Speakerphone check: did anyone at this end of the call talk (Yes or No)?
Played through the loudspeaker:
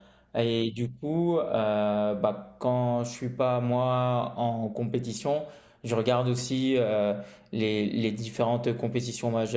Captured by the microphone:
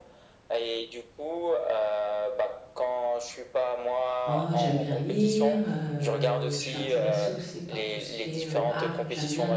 Yes